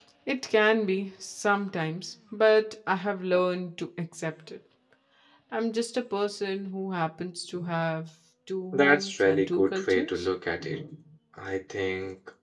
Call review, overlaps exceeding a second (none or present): present